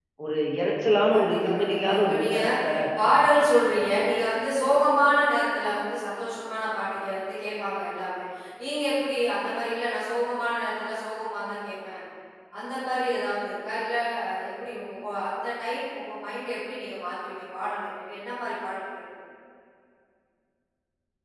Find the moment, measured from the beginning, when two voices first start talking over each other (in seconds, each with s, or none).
1.1 s